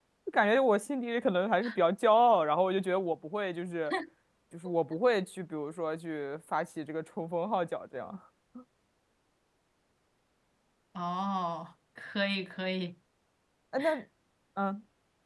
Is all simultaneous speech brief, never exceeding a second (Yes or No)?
Yes